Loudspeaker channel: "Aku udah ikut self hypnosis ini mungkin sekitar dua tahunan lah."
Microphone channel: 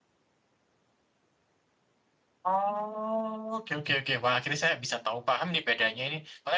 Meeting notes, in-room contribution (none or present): present